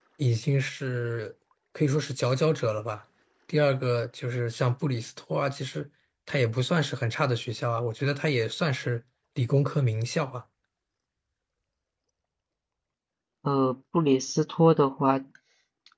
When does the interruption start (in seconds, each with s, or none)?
none